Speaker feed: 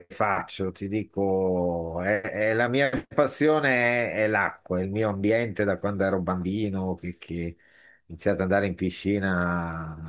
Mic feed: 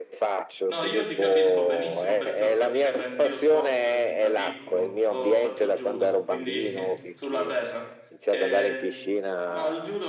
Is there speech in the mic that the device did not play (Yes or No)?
Yes